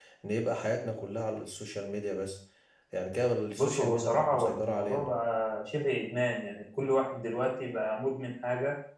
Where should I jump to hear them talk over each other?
3.6 s

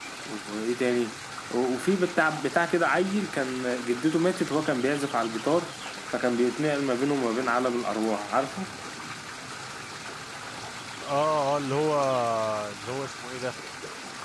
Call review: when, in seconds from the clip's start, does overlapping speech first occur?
none

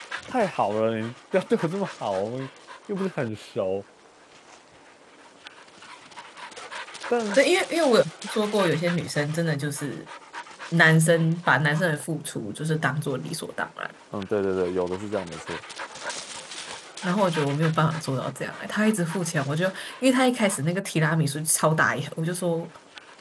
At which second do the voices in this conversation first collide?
none

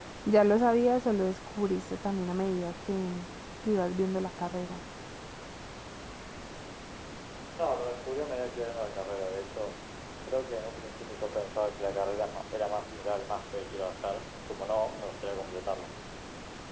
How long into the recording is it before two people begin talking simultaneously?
none

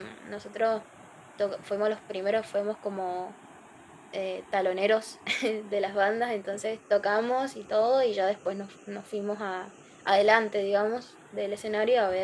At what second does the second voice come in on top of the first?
none

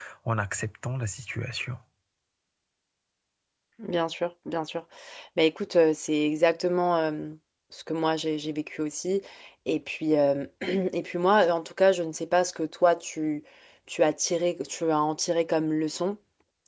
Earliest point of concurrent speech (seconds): none

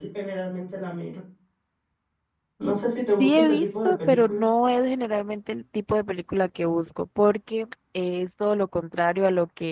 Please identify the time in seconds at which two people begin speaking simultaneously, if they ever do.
3.2 s

